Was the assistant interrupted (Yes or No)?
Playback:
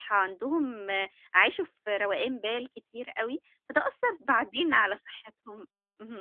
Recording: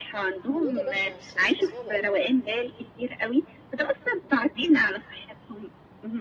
Yes